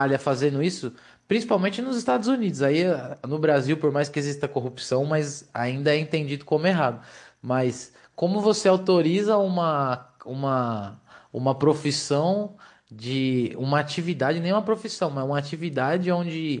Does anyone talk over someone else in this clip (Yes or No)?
No